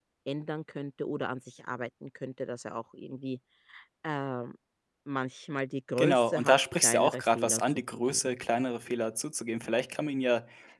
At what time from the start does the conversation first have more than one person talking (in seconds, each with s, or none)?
6.0 s